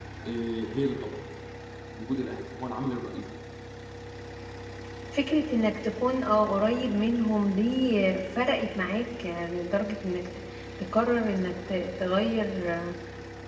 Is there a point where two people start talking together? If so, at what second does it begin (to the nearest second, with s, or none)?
none